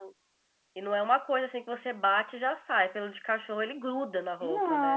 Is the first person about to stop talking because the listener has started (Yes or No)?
Yes